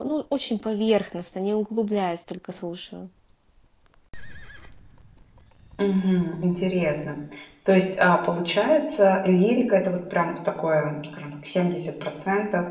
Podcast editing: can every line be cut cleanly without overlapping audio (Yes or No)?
Yes